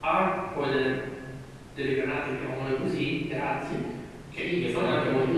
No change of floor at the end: No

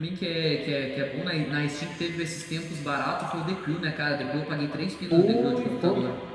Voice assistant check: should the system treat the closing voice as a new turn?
Yes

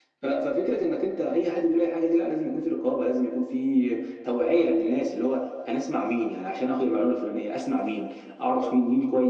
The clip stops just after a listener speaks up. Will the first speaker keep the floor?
Yes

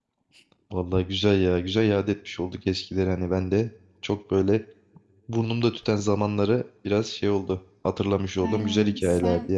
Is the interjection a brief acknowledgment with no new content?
No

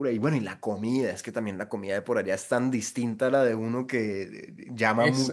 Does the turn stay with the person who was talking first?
No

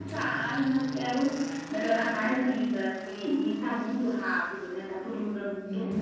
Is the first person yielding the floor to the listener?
Yes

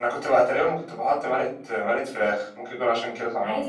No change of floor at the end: No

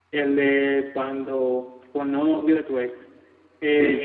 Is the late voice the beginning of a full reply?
No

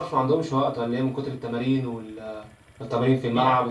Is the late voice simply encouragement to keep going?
No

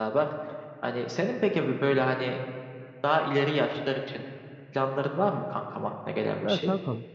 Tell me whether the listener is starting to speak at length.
Yes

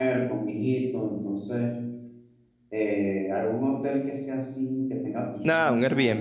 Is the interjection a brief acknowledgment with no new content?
No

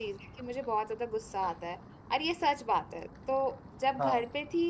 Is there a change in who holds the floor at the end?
No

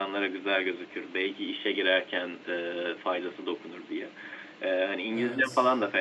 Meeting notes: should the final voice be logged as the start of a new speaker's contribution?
No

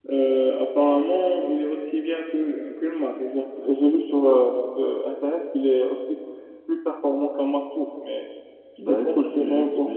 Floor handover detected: Yes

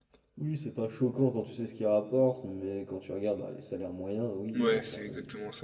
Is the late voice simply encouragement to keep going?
No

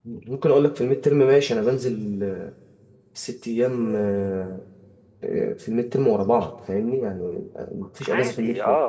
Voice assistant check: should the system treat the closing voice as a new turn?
Yes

